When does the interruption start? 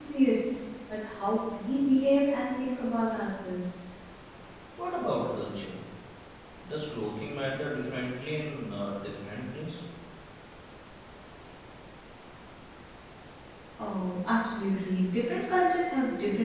none

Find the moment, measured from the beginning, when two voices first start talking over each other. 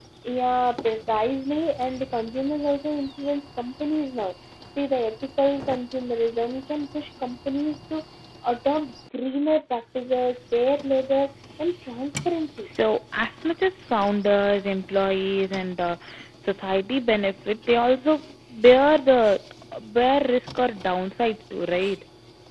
none

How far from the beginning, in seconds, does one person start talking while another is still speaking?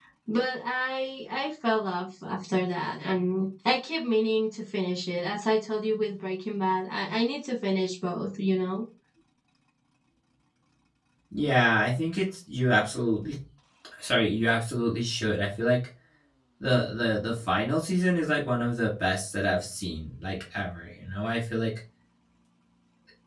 none

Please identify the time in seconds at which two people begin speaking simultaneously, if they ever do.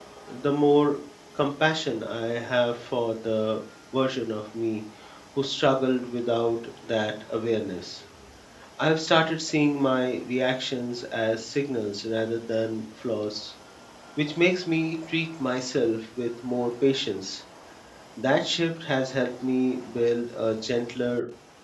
none

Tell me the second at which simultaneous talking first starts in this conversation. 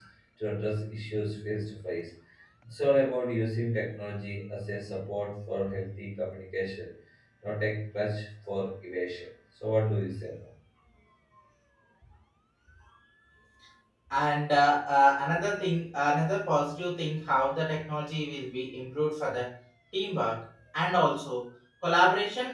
none

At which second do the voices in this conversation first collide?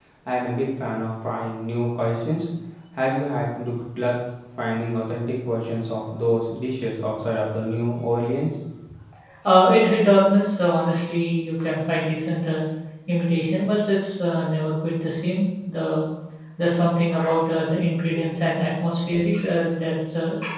none

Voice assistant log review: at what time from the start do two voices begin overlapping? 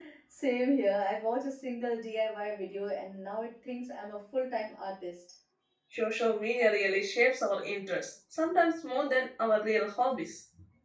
none

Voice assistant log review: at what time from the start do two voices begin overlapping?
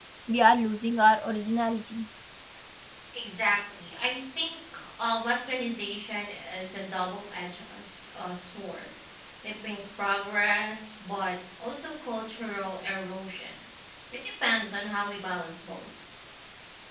none

